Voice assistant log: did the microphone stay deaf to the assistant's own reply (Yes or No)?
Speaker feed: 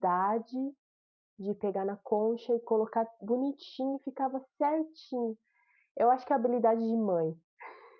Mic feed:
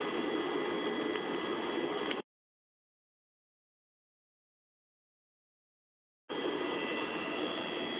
Yes